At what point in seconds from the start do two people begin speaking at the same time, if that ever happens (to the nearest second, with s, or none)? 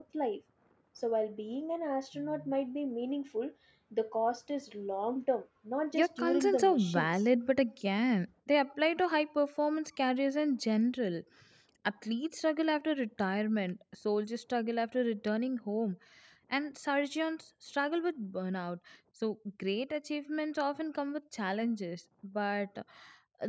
6 s